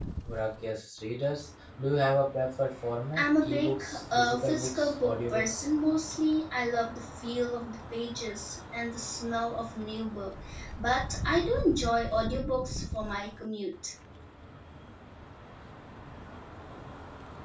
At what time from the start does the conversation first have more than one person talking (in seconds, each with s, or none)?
3.1 s